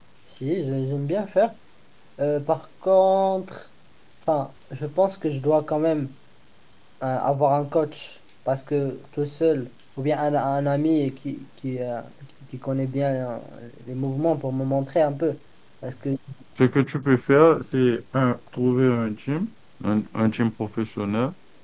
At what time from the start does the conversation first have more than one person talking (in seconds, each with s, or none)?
none